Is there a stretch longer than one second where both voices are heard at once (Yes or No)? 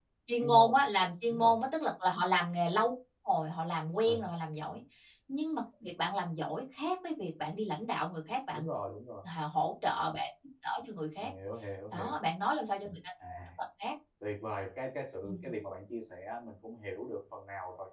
No